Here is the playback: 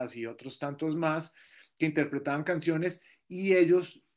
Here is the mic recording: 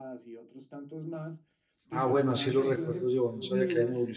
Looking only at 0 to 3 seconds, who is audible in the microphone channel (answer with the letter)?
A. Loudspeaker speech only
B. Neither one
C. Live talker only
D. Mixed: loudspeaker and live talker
D